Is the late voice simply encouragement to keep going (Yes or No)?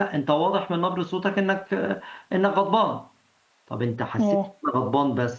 Yes